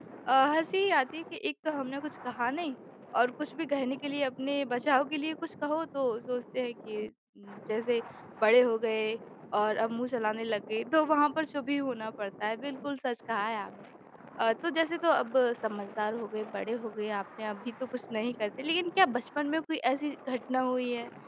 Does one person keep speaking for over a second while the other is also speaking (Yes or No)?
No